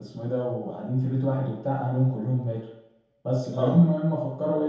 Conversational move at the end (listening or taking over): listening